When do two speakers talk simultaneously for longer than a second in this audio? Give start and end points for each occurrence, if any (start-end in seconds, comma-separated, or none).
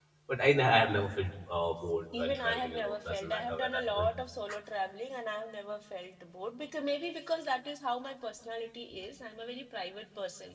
2.2-4.1